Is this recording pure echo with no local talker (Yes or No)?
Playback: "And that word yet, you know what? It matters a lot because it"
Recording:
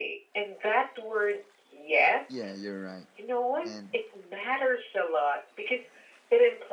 No